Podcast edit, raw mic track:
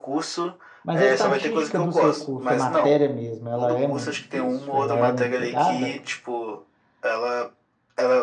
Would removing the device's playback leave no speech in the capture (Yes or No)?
No